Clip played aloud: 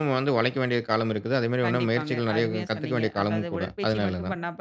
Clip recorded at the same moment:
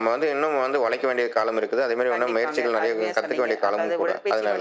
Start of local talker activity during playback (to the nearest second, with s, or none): none